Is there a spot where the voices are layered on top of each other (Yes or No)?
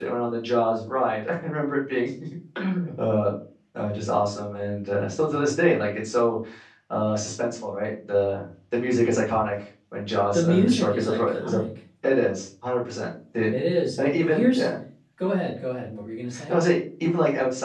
Yes